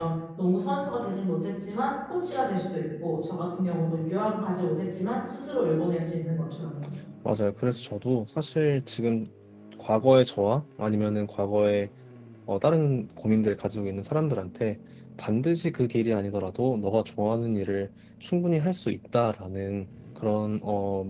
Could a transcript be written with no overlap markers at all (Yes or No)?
Yes